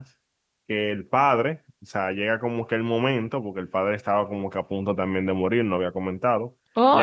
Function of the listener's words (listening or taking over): taking over